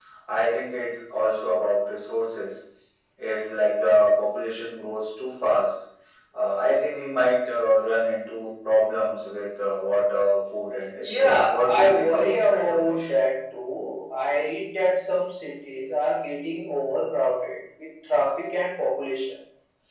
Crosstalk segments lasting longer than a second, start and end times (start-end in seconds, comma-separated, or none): 11.0-13.0